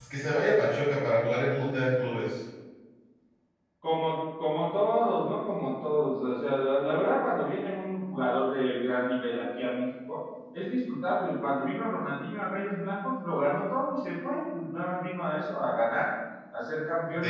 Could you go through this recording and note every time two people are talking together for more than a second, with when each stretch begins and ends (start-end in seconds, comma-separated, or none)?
none